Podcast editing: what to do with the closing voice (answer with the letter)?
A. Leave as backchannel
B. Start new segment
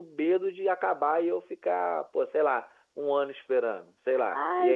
B